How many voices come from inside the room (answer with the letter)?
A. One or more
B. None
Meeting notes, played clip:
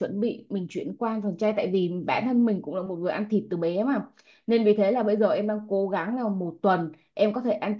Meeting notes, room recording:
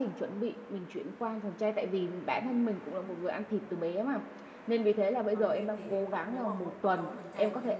A